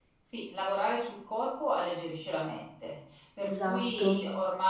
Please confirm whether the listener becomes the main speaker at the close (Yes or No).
No